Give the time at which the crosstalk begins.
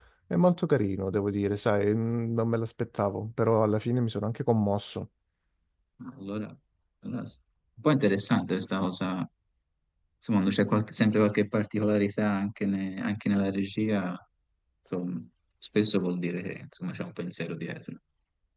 none

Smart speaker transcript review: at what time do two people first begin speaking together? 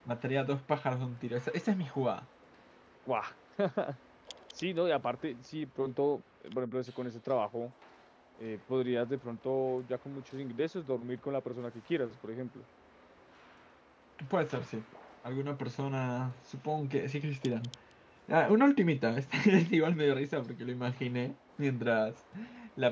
none

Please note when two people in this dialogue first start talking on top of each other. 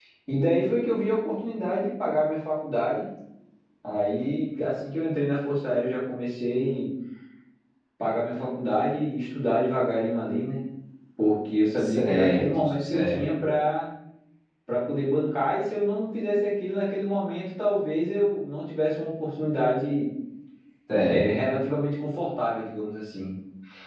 11.8 s

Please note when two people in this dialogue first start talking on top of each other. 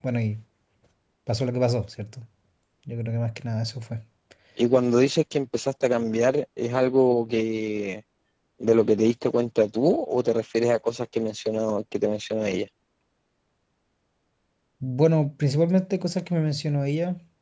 none

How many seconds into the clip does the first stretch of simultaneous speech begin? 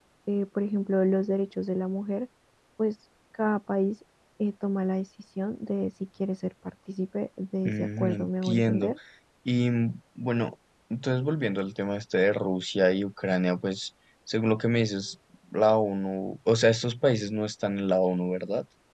7.6 s

